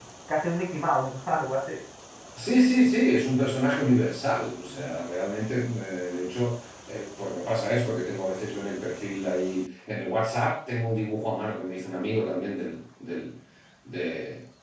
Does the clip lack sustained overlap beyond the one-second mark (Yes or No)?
Yes